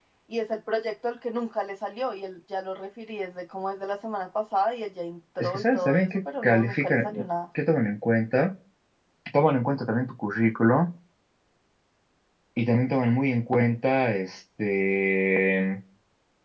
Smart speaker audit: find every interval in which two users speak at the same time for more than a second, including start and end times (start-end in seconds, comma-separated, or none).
5.4-7.1